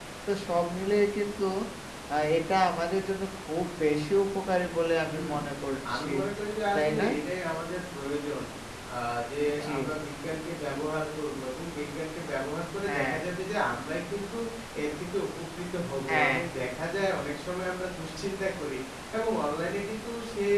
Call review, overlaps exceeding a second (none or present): none